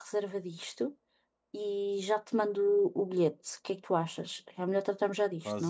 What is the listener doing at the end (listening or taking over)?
taking over